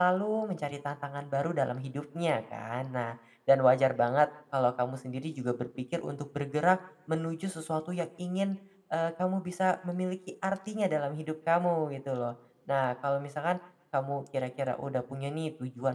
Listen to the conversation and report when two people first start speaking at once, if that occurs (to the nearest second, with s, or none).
none